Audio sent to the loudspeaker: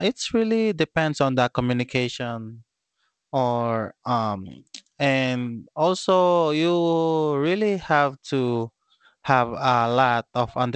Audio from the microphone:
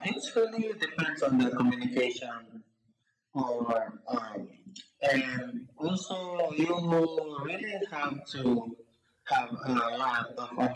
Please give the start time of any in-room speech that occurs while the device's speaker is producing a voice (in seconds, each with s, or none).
none